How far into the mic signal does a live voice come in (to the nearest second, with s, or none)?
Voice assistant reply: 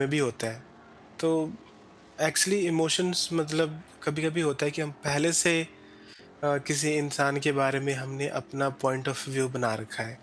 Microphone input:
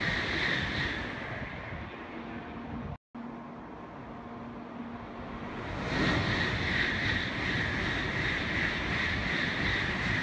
none